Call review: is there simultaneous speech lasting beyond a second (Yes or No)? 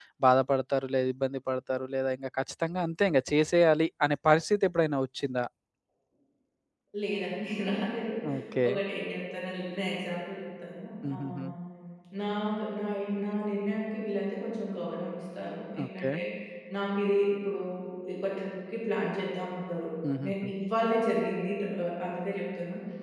No